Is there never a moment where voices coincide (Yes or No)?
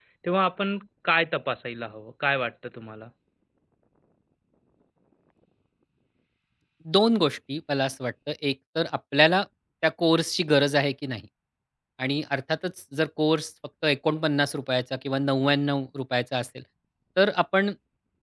Yes